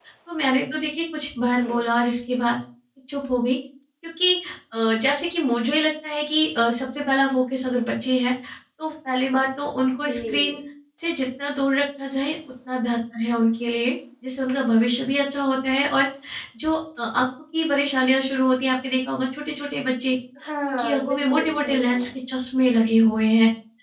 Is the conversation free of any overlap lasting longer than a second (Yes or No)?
No